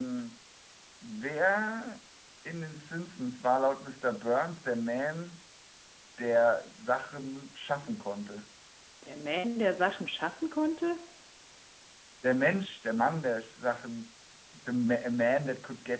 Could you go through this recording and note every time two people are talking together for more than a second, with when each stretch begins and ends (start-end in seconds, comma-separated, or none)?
none